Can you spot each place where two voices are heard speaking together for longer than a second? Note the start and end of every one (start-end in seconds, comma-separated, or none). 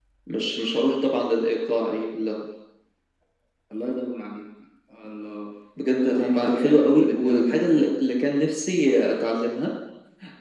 5.8-7.9